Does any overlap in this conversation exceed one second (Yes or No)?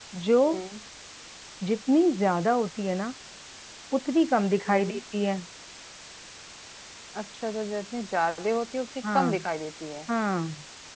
No